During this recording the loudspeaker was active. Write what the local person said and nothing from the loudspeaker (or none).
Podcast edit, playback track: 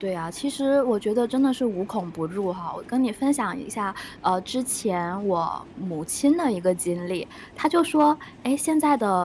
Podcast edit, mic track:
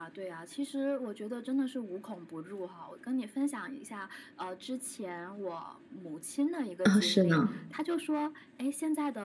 啊，是呢，